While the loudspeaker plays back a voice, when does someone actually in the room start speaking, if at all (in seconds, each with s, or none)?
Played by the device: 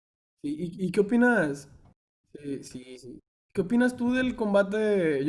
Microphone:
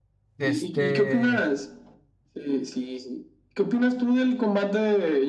0.4 s